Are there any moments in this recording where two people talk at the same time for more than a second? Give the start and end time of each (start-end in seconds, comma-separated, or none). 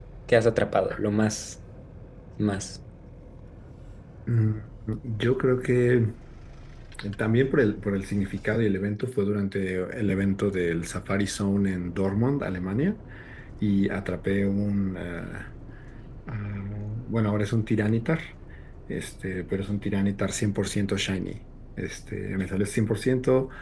none